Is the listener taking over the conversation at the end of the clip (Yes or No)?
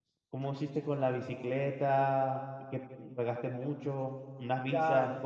Yes